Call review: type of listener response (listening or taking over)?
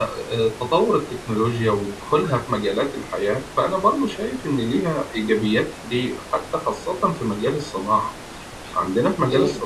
listening